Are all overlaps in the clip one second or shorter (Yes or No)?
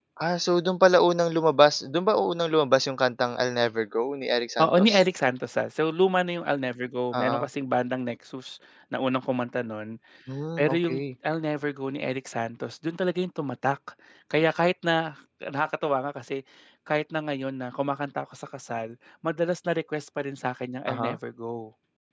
Yes